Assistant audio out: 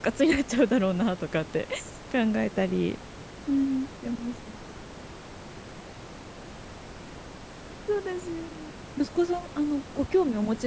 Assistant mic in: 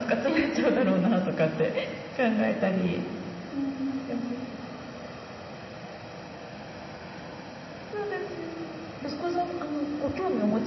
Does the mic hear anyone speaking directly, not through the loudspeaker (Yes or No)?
No